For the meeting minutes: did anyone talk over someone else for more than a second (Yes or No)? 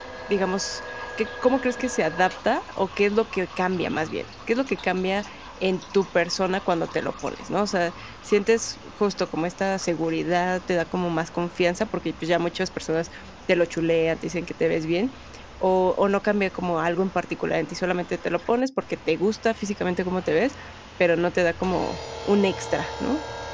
No